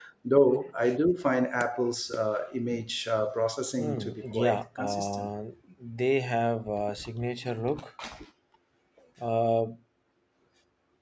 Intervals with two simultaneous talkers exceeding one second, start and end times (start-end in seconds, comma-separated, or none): 3.8-5.3